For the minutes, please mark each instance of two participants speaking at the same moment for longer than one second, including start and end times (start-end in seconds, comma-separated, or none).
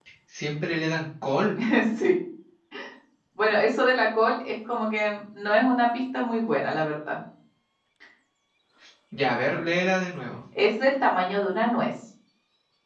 none